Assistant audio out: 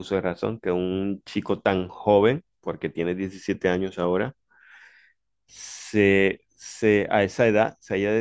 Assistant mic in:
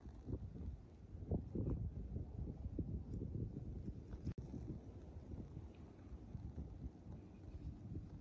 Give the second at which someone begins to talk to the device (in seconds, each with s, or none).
none